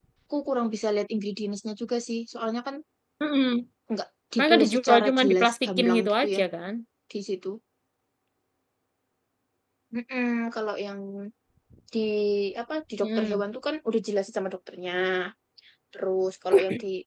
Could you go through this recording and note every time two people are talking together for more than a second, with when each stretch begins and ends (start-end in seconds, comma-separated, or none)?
4.4-6.4